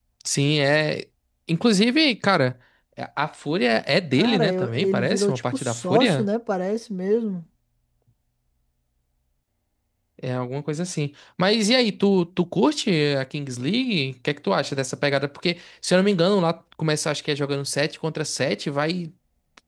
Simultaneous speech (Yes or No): Yes